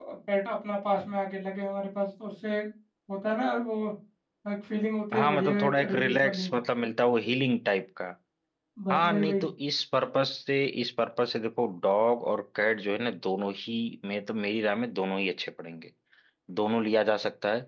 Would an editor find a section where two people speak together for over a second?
Yes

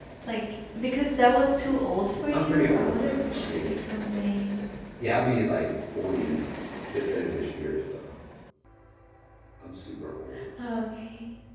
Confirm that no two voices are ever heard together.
No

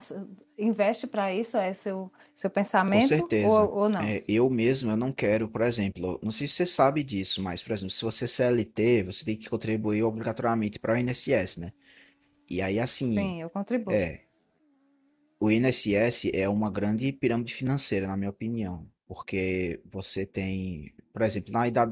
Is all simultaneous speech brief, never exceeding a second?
No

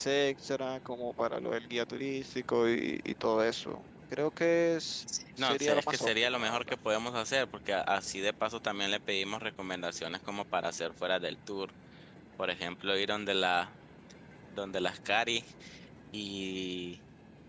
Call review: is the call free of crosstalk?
No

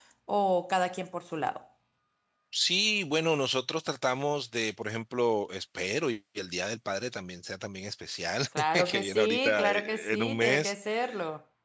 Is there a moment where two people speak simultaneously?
Yes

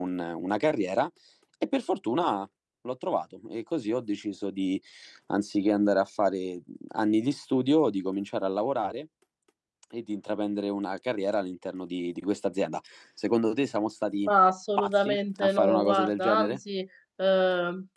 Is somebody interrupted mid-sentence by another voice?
Yes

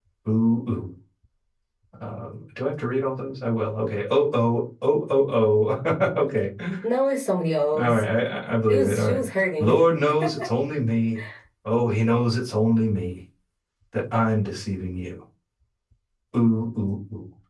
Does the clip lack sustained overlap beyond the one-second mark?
Yes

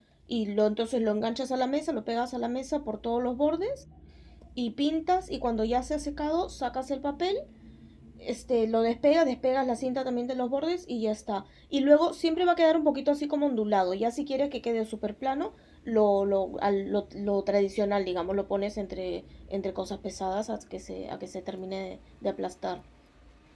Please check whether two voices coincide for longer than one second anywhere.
No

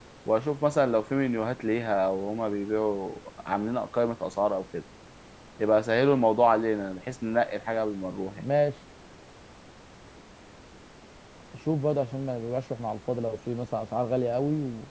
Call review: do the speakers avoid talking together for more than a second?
Yes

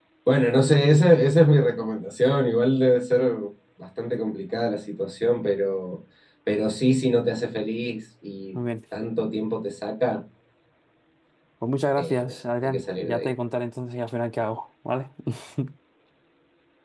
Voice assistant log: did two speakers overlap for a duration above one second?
Yes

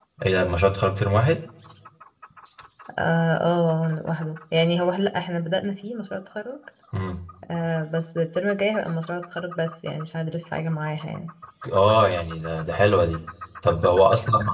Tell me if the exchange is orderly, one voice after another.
Yes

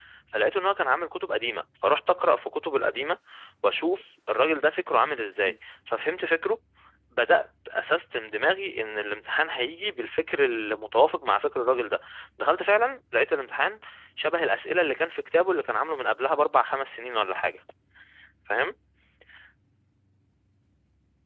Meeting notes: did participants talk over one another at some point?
No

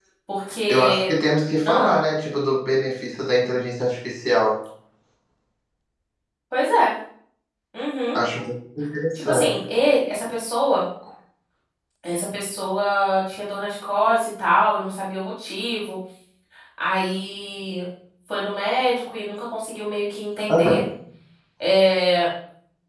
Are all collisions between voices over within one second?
Yes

